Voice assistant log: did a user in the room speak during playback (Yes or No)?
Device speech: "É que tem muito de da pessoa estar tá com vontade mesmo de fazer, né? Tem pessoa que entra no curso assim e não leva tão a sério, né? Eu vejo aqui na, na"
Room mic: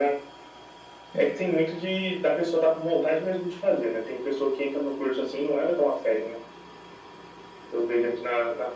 No